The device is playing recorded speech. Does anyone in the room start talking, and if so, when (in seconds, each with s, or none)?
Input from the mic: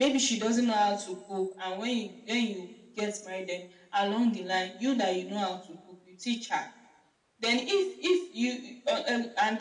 none